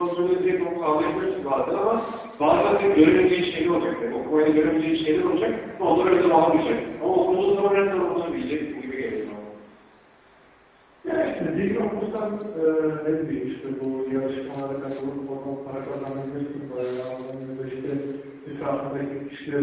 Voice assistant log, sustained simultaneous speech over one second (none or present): none